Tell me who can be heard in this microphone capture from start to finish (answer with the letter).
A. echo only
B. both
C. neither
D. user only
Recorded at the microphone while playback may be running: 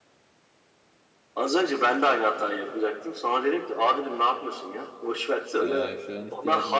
B